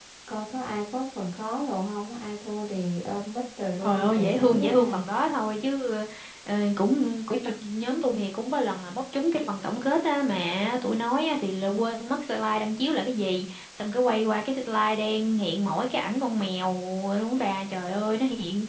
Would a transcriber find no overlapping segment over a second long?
No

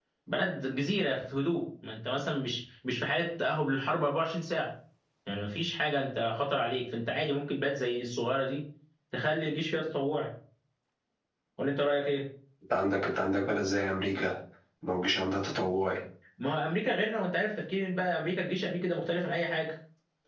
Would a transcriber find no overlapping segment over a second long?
Yes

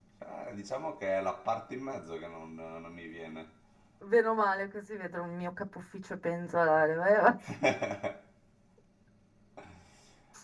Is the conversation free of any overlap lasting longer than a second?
Yes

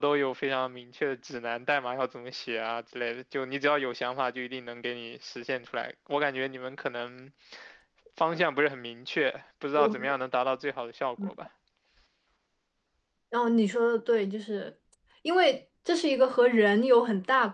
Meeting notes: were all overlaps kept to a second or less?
Yes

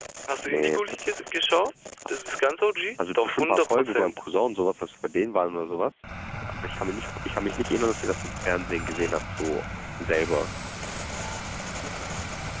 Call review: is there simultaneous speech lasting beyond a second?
Yes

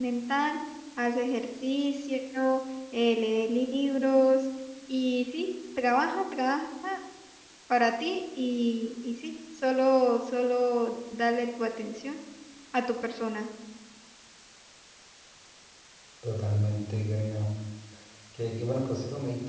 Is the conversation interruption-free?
Yes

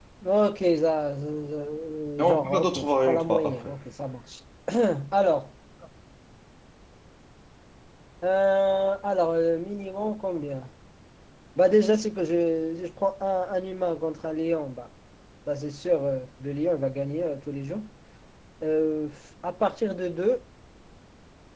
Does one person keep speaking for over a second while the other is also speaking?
Yes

